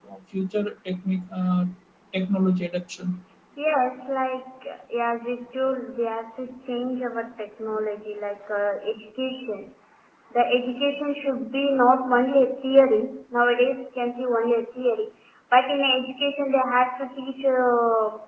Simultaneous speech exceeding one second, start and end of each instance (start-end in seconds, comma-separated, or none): none